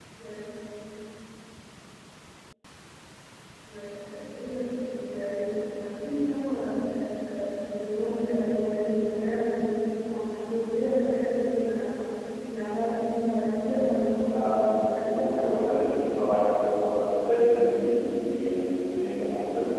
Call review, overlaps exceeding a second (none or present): present